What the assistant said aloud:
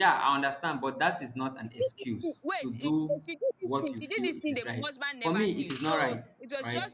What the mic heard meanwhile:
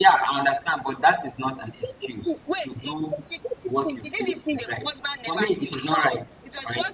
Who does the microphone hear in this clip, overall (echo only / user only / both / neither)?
echo only